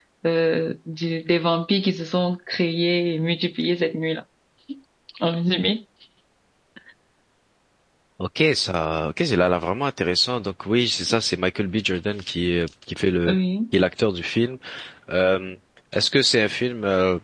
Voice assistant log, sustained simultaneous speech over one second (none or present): none